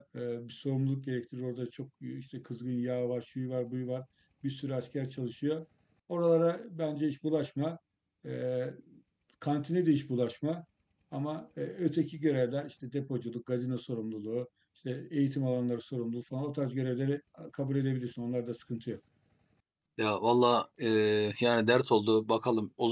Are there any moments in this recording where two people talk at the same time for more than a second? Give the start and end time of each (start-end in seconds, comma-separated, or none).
none